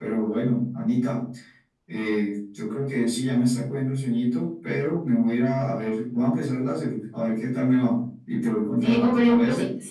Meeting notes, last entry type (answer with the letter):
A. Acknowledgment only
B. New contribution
B